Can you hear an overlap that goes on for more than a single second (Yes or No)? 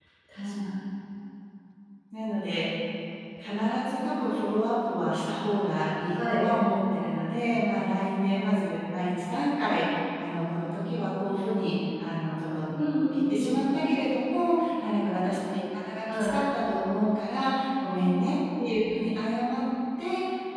No